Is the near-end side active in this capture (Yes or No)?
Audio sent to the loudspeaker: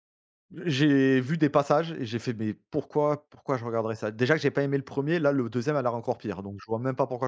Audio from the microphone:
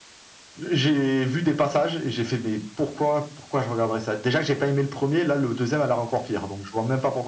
No